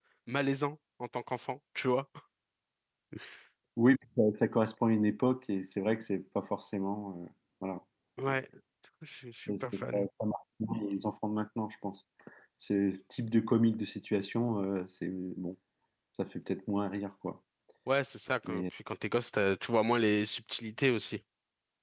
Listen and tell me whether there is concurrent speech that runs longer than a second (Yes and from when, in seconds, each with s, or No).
No